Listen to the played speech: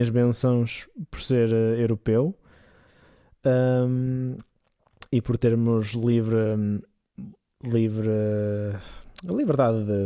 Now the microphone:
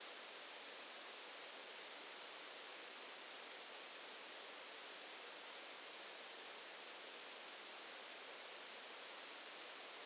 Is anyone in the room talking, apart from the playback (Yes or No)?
No